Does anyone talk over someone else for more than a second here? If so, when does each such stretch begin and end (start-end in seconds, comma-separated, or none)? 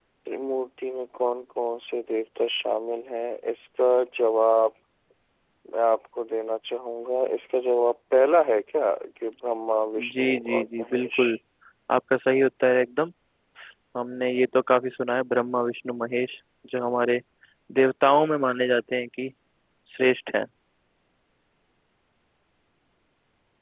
10.0-11.2